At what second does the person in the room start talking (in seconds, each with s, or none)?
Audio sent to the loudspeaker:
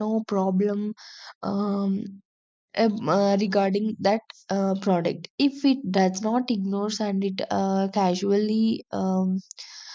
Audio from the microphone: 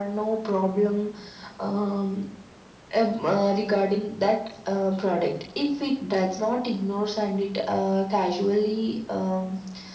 none